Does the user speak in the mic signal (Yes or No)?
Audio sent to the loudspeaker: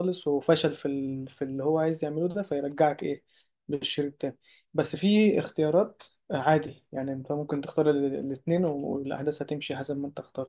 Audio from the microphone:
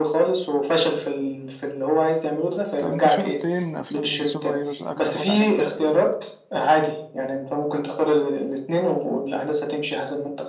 Yes